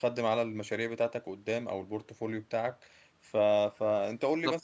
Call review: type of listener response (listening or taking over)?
listening